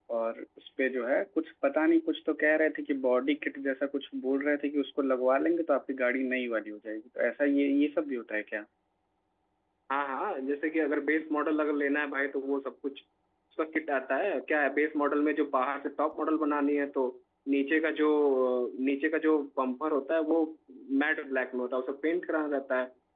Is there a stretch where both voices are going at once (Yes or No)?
No